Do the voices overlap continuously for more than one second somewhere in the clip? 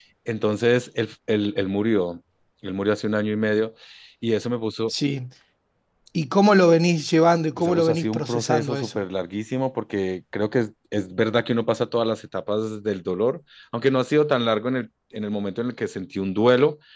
Yes, from 7.6 s

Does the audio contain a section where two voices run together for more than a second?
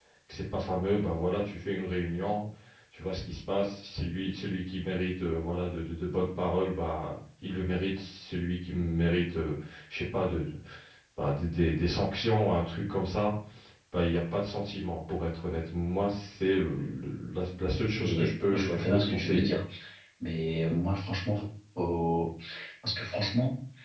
Yes, from 17.9 s

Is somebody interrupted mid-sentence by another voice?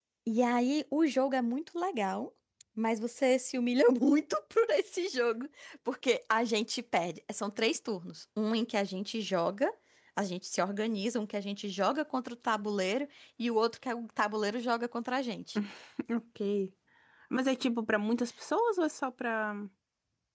No

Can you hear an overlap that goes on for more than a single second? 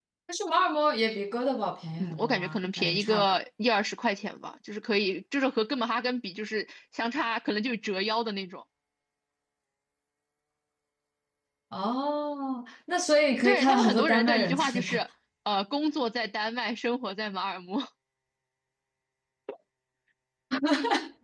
Yes, from 2.0 s

